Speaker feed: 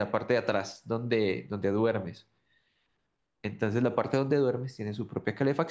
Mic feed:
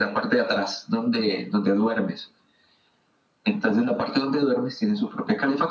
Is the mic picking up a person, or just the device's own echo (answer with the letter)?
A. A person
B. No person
B